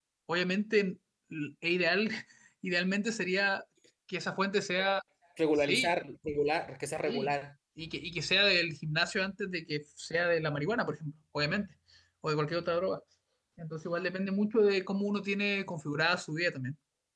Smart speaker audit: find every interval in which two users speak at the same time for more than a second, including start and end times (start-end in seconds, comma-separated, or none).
none